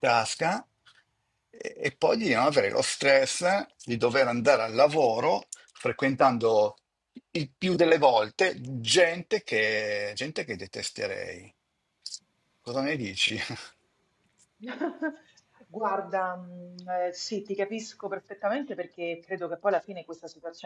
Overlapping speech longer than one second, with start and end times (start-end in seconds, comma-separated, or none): none